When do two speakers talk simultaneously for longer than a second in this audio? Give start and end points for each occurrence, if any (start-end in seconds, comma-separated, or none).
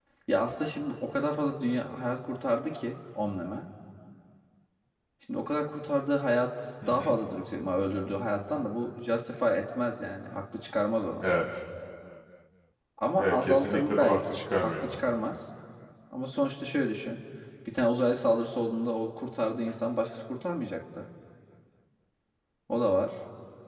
13.2-15.0